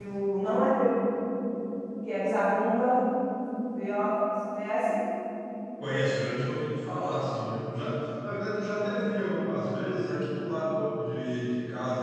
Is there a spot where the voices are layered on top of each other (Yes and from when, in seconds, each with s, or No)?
No